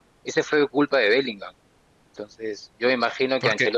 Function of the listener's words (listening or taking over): listening